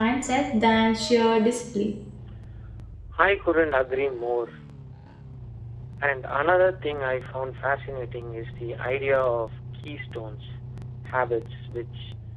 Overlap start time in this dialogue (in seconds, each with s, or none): none